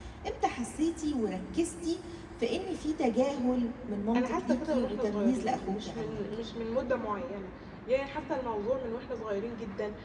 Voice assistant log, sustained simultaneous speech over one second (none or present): present